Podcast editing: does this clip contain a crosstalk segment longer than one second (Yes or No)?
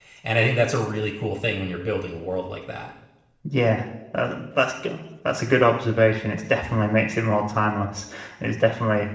No